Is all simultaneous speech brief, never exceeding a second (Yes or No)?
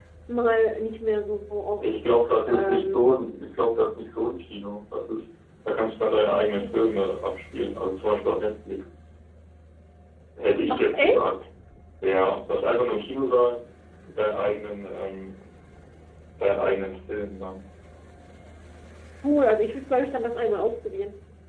No